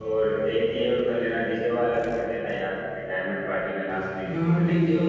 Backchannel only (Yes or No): No